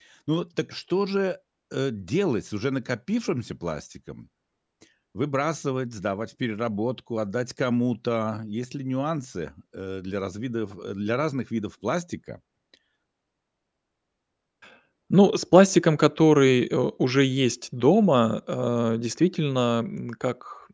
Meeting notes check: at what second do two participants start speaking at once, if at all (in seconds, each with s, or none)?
none